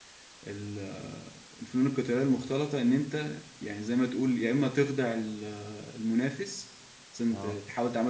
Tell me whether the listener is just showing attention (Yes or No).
Yes